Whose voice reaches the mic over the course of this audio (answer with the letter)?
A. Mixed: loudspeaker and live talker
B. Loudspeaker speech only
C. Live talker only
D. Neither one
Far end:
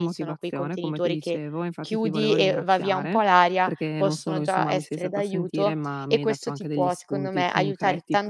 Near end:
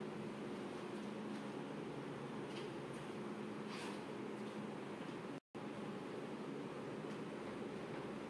D